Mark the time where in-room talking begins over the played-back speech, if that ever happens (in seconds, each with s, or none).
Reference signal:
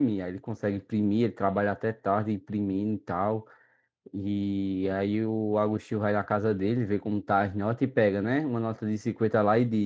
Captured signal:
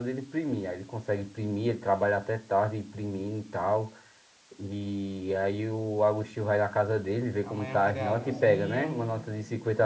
7.4 s